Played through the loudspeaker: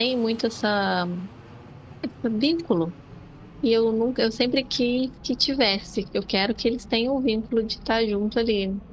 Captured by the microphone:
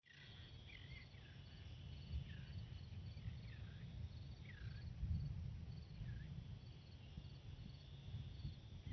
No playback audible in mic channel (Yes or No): Yes